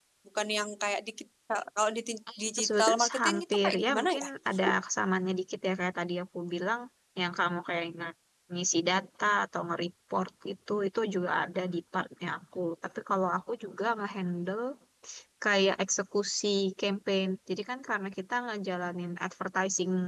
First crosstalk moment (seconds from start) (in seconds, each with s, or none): 2.3 s